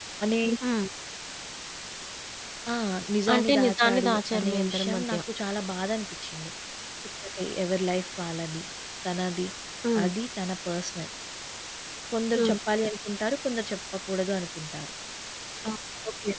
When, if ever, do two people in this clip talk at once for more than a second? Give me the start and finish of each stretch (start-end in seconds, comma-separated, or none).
3.3-5.2